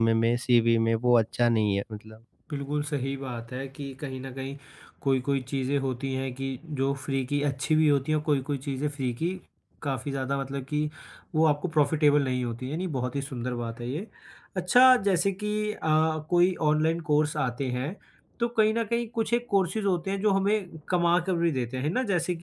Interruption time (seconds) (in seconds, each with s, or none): none